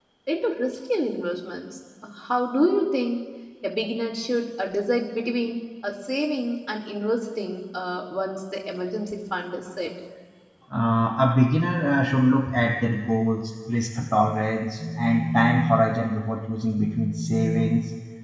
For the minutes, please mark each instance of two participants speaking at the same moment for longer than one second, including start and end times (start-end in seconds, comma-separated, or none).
none